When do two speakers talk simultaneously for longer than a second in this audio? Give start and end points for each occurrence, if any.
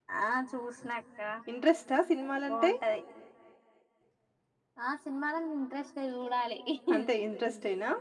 none

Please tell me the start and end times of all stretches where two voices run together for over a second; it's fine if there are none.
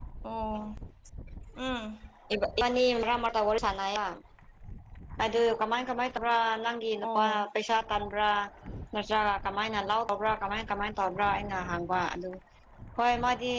none

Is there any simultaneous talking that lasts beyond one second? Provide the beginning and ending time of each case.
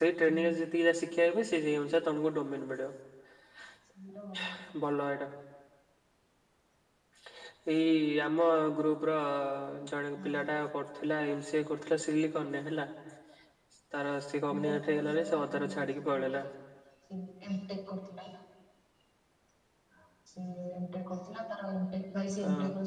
14.6-16.4

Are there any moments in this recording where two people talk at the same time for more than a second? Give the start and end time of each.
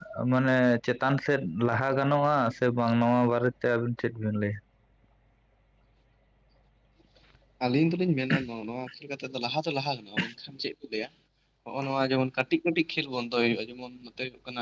none

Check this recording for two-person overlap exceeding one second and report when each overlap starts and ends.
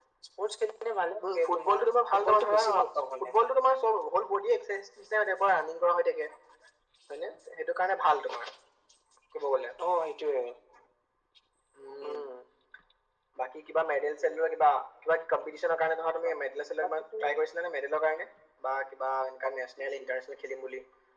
1.2-2.6

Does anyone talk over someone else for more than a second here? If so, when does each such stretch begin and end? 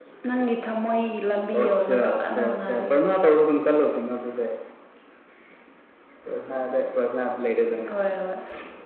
1.5-2.8

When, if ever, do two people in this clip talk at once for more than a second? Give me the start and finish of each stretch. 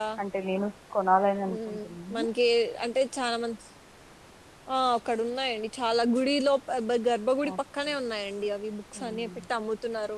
none

